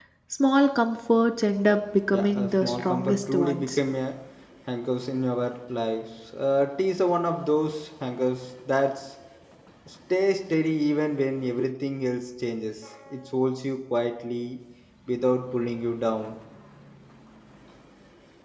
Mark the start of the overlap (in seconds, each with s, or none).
2.1 s